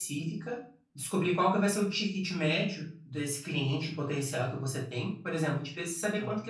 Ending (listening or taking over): listening